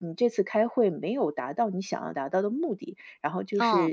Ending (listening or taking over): listening